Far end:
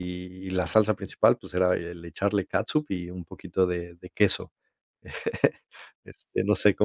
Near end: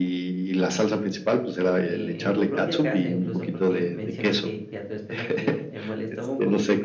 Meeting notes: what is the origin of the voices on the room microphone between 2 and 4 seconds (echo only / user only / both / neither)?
both